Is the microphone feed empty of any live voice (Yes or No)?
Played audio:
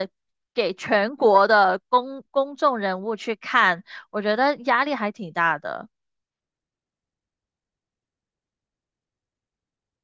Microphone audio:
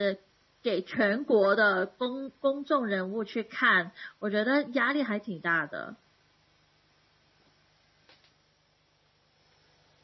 Yes